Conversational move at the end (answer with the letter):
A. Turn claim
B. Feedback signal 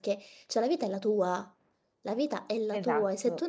B